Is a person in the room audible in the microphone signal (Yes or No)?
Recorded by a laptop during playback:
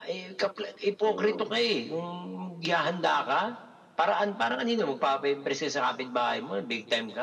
Yes